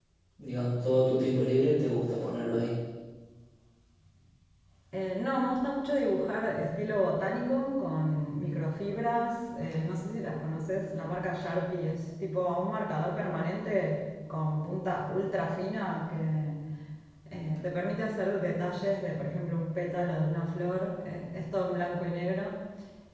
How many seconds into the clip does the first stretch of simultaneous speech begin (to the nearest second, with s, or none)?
none